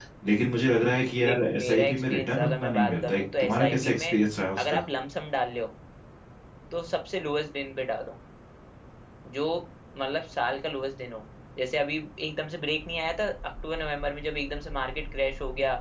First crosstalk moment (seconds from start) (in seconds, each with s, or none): 1.2 s